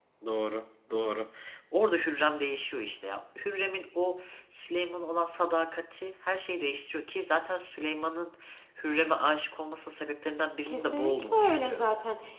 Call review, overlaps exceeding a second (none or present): present